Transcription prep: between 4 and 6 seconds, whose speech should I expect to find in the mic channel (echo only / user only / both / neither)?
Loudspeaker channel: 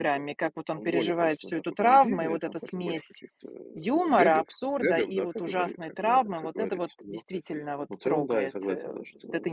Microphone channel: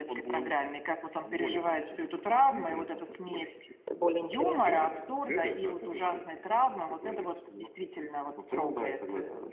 both